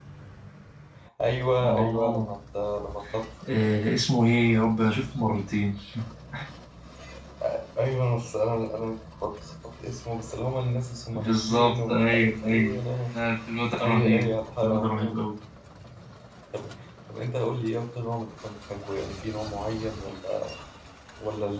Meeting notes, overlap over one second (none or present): present